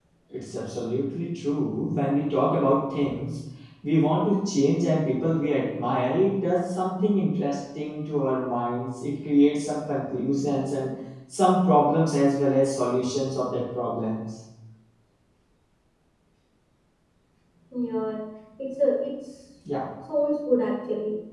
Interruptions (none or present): none